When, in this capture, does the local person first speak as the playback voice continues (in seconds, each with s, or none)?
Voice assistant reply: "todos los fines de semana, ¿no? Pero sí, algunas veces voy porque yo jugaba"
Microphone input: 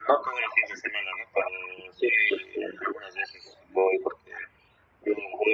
none